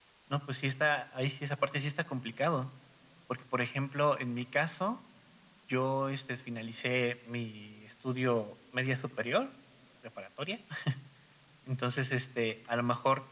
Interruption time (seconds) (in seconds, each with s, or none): none